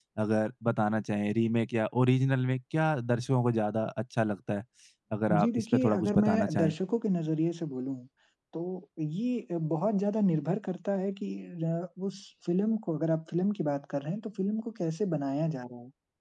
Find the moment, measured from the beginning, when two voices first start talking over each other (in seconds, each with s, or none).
5.3 s